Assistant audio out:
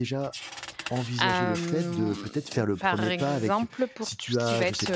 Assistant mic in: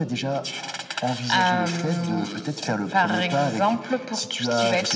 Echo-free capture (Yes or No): No